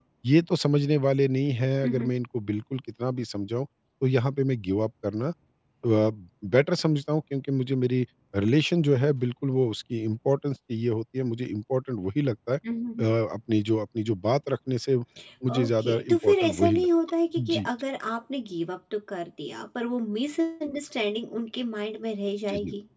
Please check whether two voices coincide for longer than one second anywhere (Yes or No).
Yes